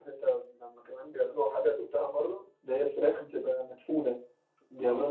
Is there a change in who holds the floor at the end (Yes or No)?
Yes